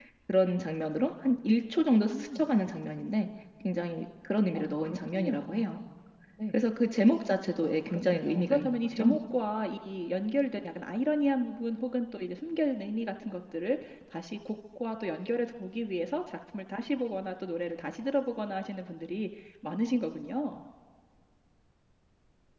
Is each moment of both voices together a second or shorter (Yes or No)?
No